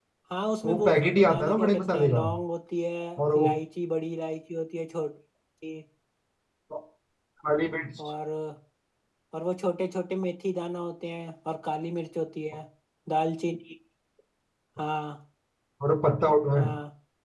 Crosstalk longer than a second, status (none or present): present